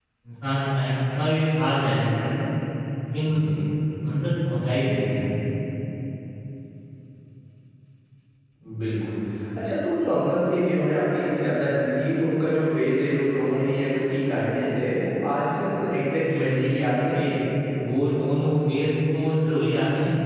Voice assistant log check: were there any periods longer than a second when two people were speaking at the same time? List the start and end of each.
none

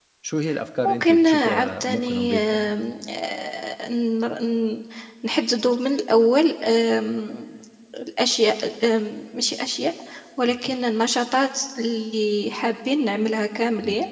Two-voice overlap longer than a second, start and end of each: 0.8-2.7

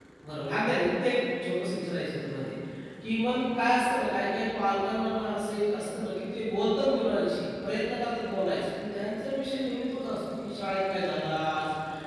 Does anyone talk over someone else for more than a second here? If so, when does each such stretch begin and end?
none

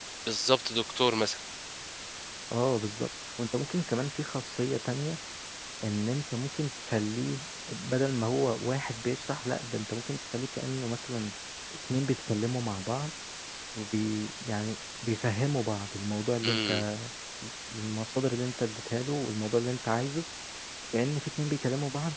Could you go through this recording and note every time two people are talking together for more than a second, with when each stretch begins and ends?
none

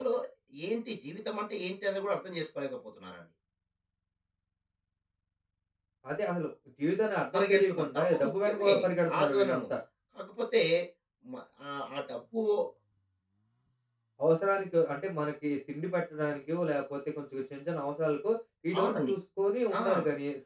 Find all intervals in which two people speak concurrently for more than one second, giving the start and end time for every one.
7.3-9.6

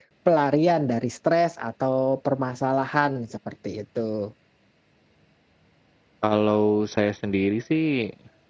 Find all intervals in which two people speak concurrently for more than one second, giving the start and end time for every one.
none

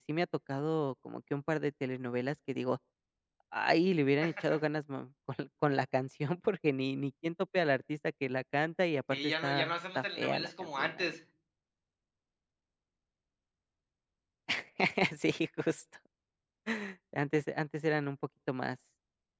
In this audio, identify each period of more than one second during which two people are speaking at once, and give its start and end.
9.1-11.1

